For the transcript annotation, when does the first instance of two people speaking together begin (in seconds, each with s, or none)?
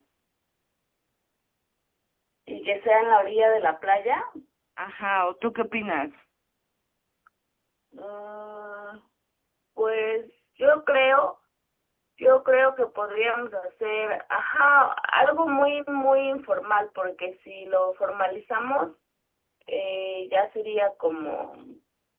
none